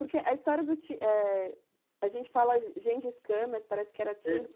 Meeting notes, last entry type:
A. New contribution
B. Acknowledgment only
A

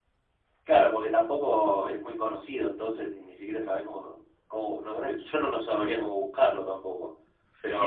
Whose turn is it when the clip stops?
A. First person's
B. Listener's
B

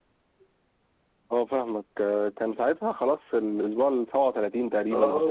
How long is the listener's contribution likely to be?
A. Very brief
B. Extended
B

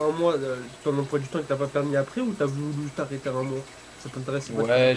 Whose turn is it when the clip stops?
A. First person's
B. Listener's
B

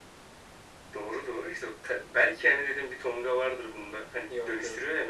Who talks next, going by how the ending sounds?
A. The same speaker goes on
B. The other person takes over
A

